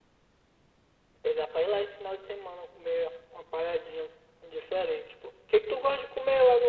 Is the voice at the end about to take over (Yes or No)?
No